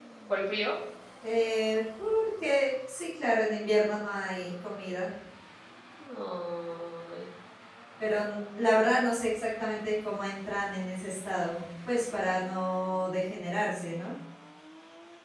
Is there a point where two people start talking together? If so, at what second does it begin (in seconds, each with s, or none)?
none